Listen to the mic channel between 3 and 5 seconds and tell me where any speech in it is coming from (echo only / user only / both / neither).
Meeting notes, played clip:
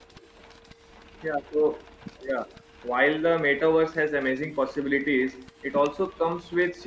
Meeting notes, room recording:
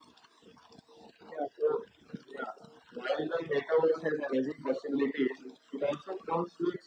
echo only